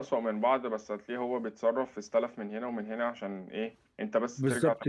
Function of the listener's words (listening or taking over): taking over